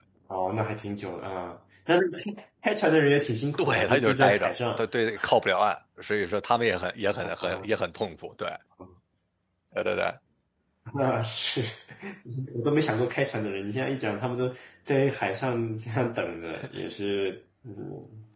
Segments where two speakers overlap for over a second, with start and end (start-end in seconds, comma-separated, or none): 3.5-4.8